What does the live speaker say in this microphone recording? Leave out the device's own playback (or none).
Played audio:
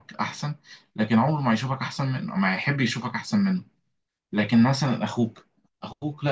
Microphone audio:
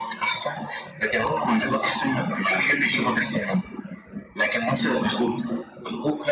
none